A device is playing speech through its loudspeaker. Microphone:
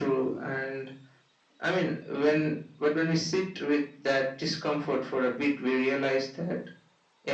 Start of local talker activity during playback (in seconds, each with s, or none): none